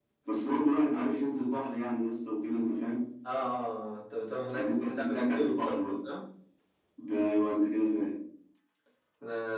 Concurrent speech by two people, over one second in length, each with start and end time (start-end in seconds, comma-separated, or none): 4.5-6.0